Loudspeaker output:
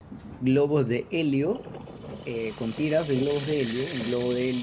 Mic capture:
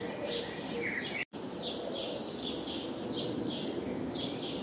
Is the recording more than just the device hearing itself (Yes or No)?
No